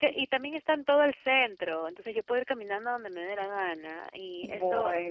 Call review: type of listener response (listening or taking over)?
listening